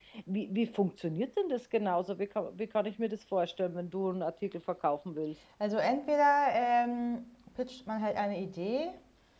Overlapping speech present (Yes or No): No